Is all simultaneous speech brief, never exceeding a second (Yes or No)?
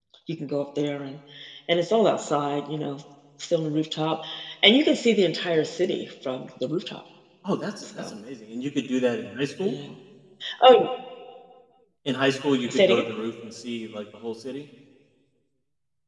Yes